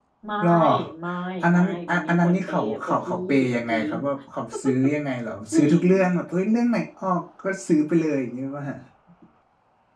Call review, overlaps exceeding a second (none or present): present